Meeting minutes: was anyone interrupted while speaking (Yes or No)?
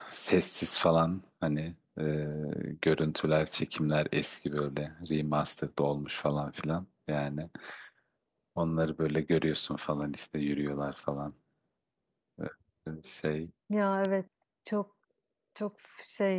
No